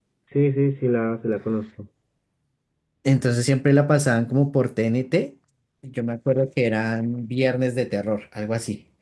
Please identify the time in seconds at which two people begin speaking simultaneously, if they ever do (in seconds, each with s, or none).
none